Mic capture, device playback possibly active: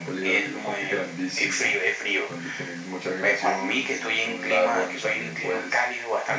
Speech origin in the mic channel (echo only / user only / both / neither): echo only